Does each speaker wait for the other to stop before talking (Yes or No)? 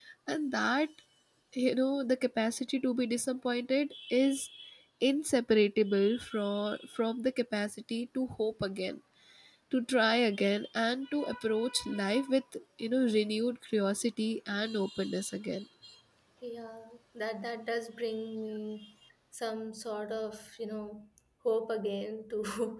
Yes